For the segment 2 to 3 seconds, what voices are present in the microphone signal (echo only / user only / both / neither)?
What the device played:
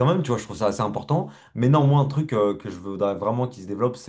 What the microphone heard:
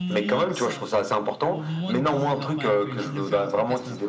both